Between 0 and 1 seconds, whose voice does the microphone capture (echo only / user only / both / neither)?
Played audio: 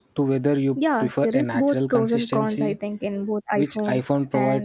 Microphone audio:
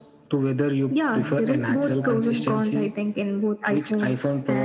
echo only